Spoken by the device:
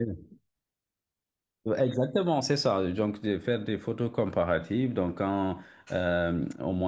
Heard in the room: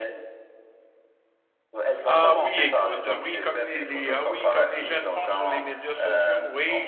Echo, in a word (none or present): present